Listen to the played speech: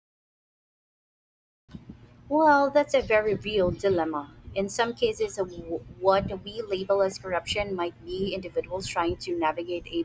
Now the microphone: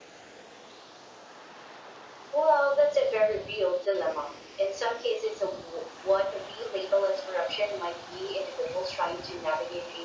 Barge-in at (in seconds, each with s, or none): none